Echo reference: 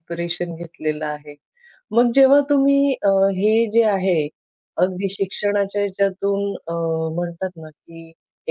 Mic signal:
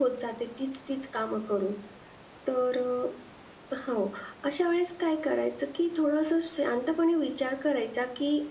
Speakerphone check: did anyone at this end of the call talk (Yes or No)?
Yes